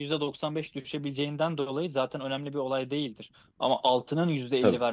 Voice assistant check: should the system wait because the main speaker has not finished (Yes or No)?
Yes